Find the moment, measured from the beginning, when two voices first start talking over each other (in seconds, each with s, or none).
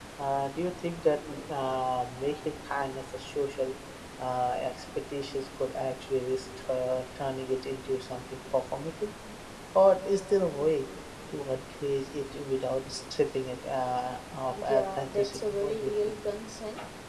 14.5 s